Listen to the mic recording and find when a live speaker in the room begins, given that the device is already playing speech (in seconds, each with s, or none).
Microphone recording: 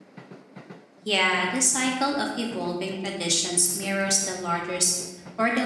1.0 s